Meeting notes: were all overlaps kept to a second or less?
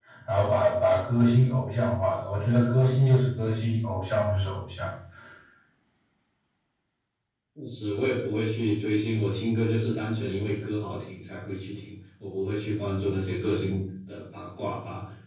Yes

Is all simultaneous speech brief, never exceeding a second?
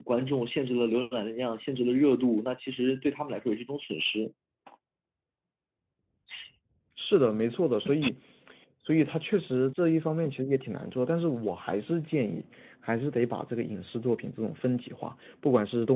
Yes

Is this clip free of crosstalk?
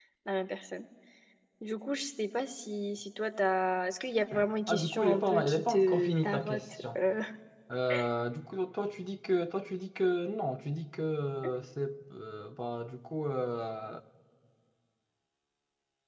No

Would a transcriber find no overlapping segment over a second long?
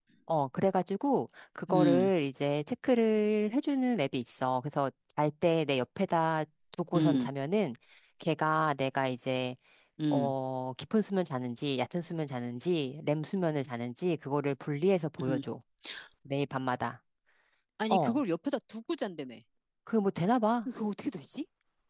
Yes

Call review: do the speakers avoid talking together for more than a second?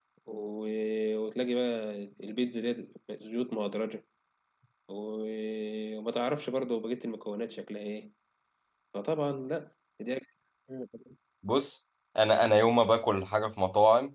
Yes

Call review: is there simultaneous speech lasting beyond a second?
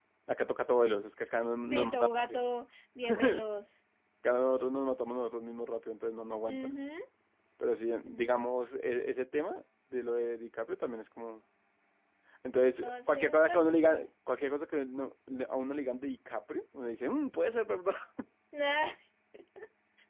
Yes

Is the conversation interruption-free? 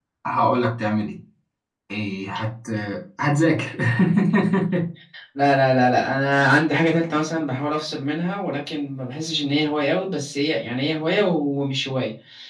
Yes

